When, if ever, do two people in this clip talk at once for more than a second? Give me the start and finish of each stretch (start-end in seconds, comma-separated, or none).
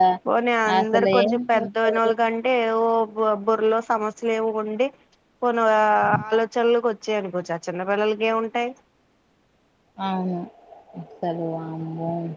0.8-2.1